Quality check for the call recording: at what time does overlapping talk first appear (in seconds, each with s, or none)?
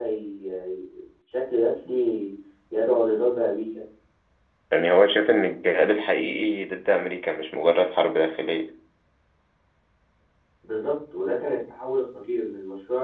none